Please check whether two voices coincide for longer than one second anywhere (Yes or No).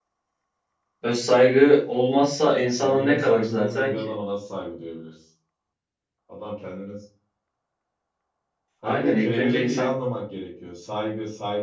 Yes